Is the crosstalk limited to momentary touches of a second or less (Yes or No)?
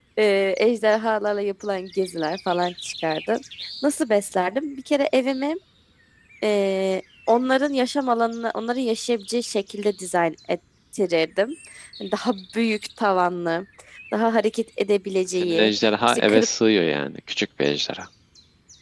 Yes